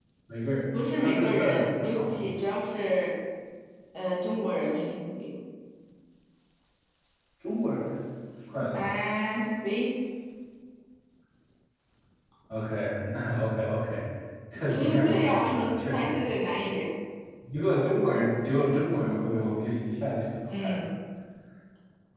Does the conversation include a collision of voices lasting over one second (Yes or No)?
Yes